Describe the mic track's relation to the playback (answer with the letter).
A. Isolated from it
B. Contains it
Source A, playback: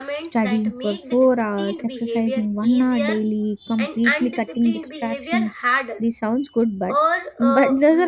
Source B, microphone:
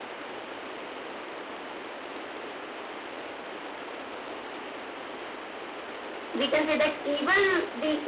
A